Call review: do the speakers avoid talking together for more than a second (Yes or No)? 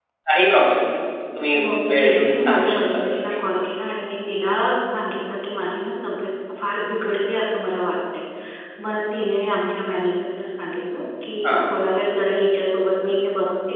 No